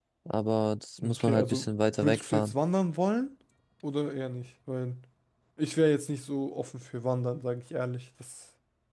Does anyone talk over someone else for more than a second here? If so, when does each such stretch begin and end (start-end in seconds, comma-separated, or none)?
1.0-2.5